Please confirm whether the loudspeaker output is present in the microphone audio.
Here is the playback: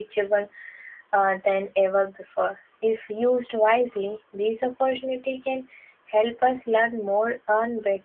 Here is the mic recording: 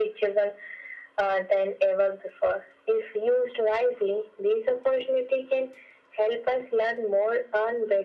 Yes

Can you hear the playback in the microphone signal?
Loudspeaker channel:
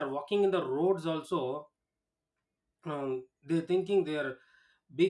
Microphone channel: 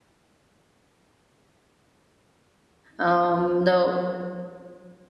No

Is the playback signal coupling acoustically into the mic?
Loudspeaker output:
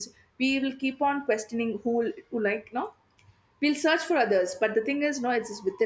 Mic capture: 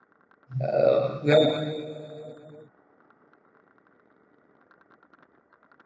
No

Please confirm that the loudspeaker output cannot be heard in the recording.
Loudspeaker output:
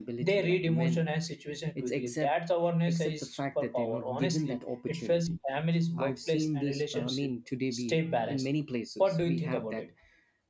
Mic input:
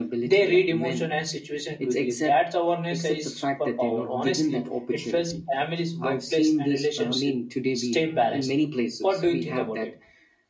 No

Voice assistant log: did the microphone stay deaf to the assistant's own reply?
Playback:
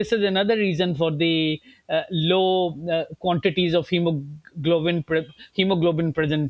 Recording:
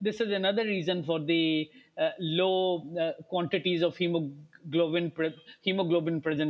No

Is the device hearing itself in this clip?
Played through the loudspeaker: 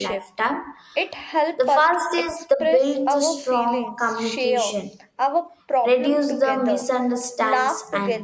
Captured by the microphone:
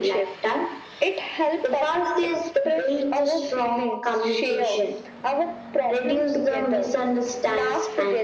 Yes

